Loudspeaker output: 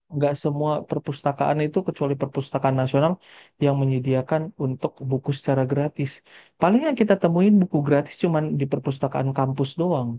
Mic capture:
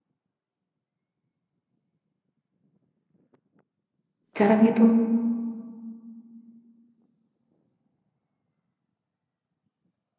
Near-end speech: present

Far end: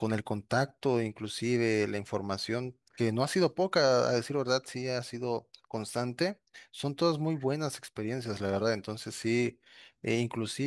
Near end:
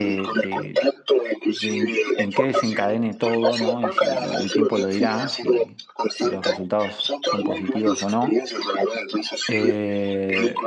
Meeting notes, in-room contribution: present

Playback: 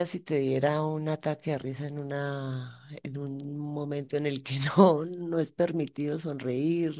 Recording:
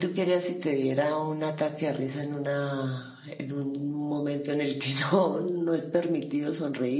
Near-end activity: none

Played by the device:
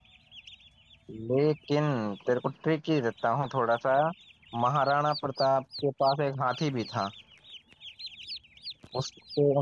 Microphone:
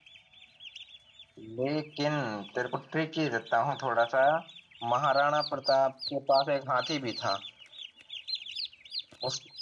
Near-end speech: none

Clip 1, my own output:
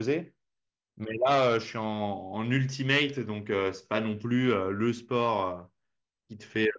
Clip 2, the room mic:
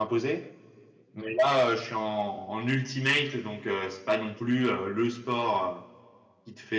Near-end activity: none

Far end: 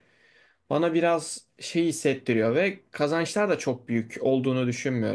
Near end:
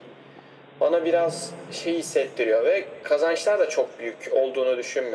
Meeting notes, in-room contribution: none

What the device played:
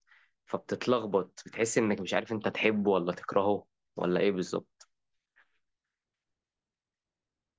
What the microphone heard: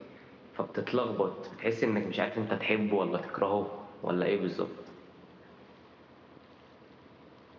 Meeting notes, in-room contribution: none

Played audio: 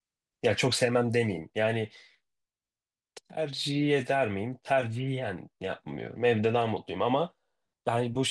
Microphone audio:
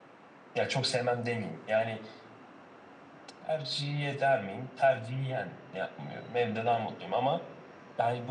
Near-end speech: none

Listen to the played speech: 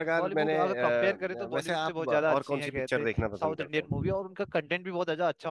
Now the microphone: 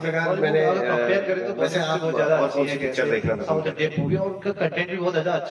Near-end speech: none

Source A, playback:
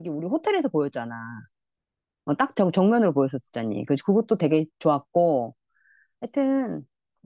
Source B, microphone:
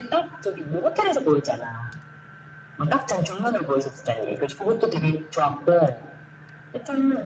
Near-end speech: none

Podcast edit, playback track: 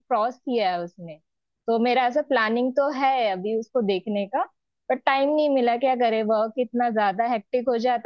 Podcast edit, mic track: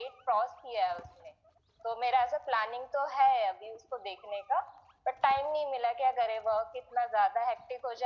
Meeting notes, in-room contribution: none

